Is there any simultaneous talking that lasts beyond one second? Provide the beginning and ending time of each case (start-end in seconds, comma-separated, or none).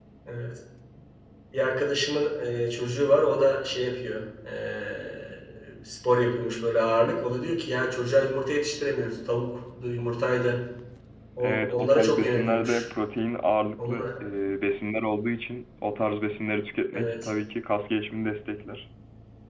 11.4-12.8